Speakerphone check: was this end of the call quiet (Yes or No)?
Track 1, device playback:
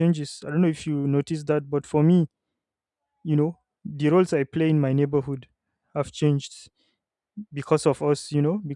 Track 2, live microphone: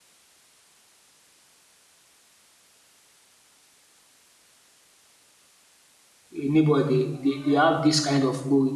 No